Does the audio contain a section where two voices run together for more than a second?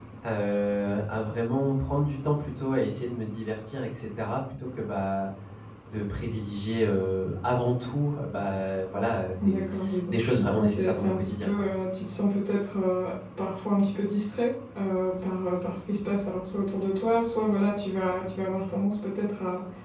Yes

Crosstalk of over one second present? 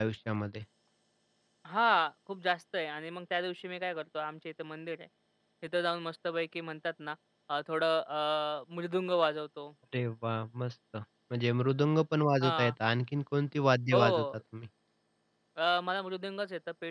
No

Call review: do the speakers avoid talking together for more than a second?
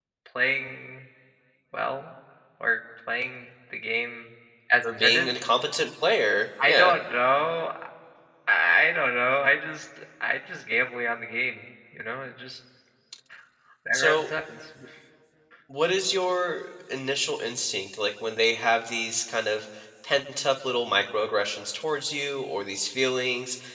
Yes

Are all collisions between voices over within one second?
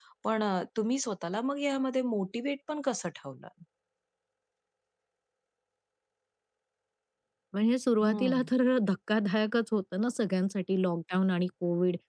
Yes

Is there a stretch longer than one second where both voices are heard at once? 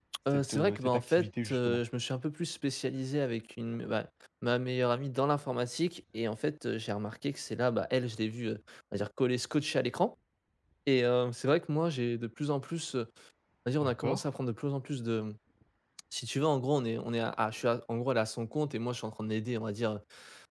Yes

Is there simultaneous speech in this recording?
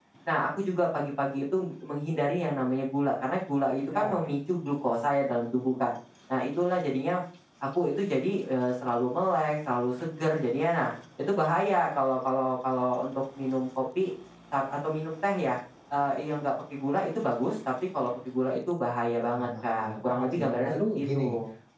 Yes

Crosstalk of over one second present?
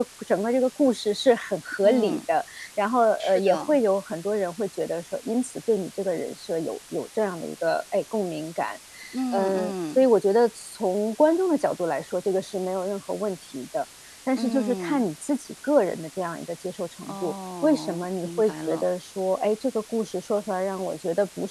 Yes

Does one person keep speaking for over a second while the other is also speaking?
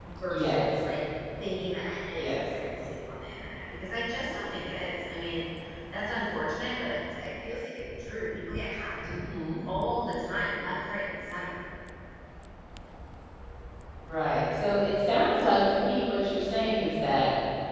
No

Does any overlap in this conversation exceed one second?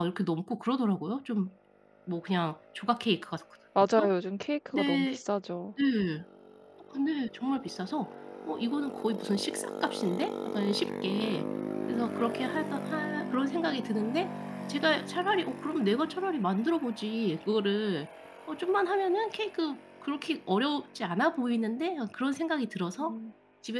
No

